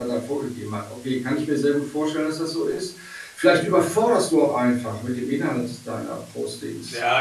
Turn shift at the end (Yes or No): Yes